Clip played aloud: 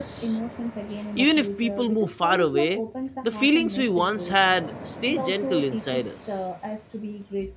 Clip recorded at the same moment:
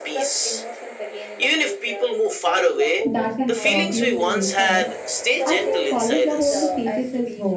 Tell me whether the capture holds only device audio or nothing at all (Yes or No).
No